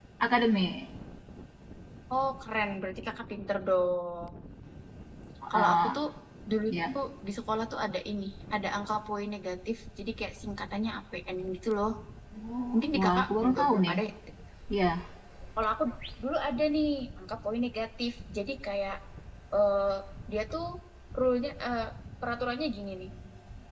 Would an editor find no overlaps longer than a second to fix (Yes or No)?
No